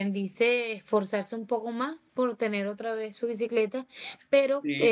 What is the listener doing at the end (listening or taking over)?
taking over